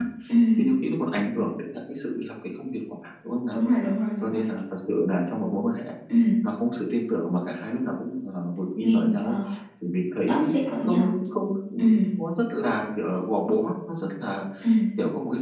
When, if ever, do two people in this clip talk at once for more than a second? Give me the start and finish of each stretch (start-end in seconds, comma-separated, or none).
none